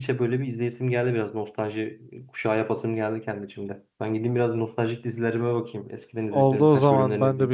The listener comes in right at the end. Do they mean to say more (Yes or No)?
Yes